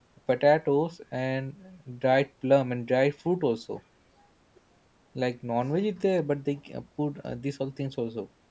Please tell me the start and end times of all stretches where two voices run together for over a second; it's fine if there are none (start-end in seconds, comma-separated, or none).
none